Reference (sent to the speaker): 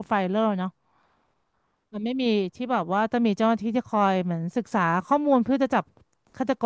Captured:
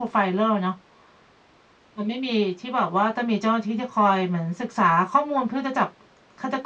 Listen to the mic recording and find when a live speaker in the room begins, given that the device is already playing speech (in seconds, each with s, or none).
none